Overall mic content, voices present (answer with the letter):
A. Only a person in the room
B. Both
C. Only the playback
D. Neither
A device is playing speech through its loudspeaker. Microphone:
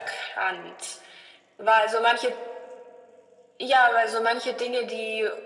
C